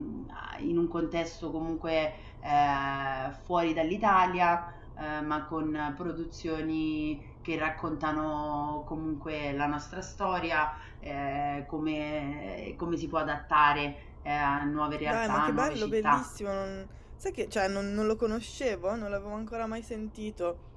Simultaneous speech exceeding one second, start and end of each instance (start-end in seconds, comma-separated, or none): 15.1-16.3